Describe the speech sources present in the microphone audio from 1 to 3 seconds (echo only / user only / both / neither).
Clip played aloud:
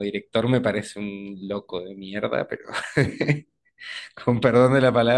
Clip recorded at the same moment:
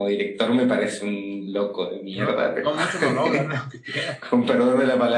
both